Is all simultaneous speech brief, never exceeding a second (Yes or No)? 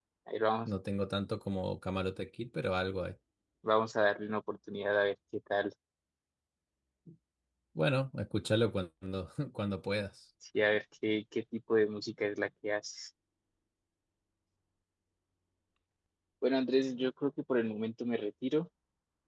Yes